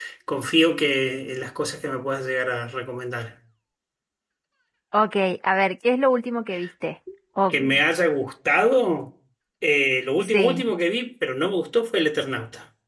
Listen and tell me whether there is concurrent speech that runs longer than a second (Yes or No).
No